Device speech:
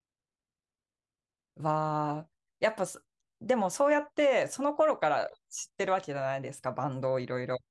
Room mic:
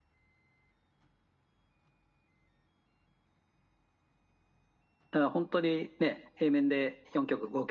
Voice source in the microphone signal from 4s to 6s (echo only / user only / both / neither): user only